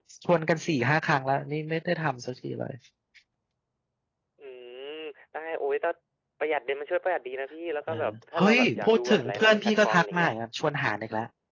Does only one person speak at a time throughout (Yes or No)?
No